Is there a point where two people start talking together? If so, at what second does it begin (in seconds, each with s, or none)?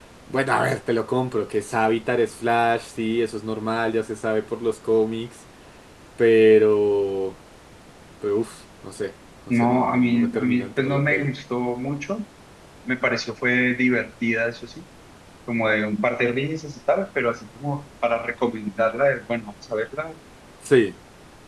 9.5 s